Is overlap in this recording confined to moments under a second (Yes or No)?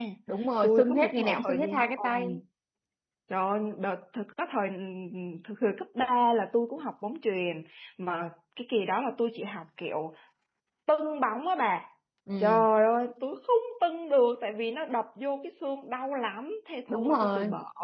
No